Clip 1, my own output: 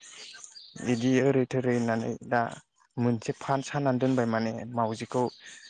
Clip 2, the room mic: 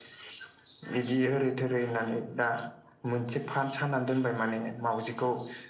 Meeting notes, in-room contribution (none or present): none